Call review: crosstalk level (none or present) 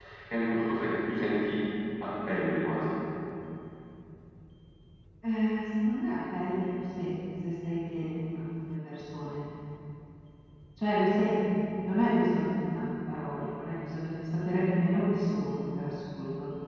none